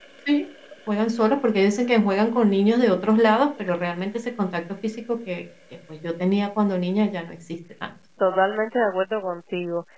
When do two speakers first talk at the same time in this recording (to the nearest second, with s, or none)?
none